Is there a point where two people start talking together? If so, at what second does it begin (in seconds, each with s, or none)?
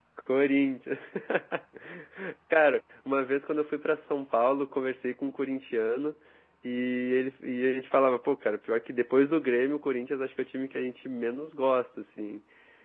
none